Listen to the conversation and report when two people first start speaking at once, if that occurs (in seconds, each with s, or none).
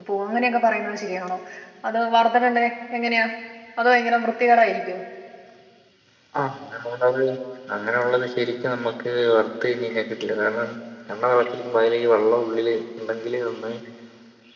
none